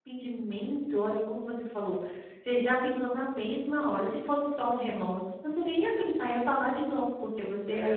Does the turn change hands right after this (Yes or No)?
Yes